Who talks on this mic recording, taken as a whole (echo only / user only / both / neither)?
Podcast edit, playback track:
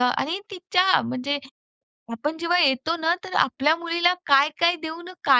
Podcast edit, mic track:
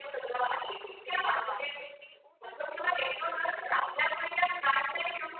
both